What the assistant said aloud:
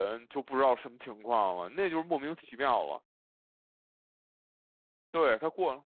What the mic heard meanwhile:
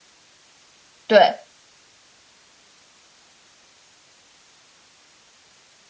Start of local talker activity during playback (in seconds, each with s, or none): 1.1 s